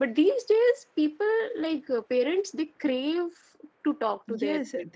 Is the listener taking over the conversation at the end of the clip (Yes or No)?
Yes